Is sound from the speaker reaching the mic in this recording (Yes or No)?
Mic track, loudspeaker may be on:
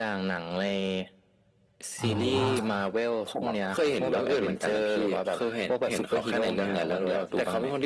Yes